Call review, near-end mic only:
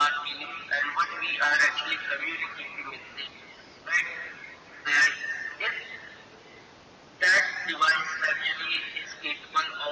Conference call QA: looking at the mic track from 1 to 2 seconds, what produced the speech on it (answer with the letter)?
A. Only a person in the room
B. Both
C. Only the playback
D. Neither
C